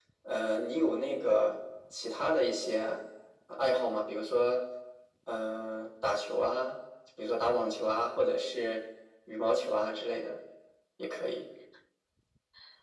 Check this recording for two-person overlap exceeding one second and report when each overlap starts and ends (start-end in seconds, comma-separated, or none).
none